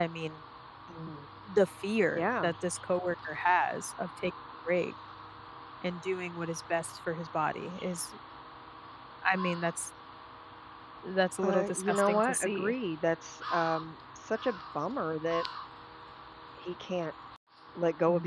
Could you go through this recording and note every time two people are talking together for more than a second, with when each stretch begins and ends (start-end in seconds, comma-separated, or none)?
11.4-12.7